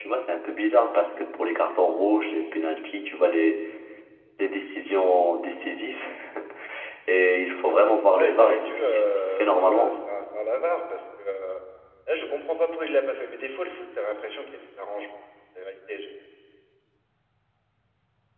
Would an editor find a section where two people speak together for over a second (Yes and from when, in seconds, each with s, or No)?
Yes, from 8.2 s